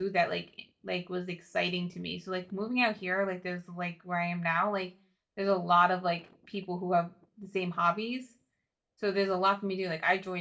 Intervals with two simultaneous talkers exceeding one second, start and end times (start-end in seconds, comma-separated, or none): none